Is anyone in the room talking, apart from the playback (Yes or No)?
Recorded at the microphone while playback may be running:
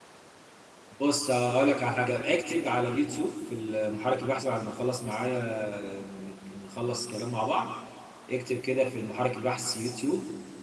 Yes